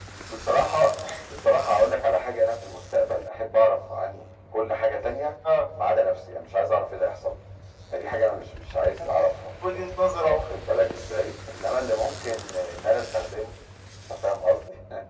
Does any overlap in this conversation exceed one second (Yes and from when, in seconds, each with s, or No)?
No